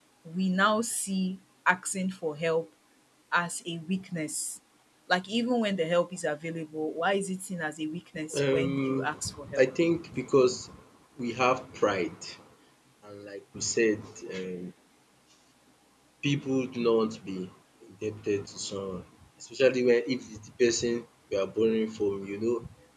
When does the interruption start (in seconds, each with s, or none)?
8.3 s